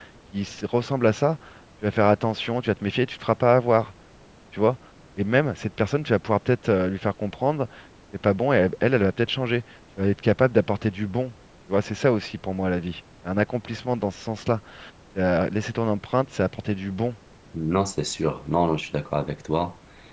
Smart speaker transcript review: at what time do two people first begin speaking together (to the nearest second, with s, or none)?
none